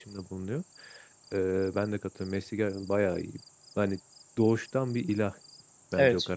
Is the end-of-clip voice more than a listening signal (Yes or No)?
No